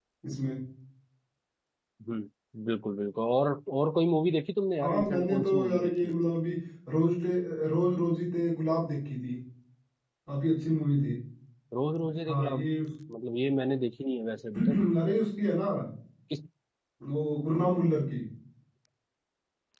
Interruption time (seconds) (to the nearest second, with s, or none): 5 s